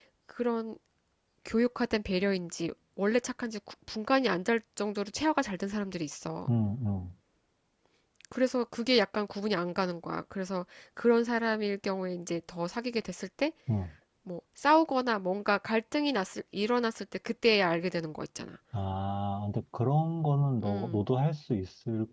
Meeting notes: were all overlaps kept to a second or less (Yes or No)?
Yes